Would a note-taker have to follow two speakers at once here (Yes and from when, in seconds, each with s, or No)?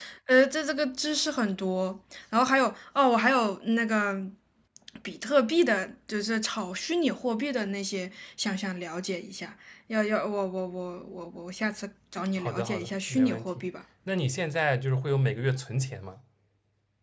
Yes, from 12.4 s